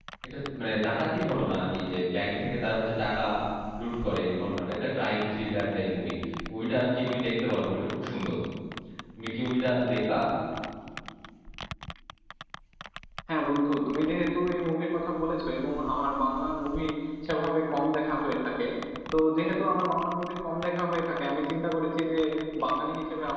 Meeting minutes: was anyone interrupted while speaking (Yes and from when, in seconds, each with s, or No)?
No